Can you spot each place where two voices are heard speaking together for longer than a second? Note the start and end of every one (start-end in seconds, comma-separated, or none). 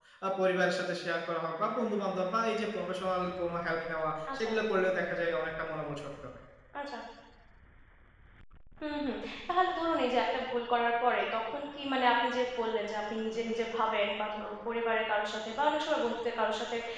none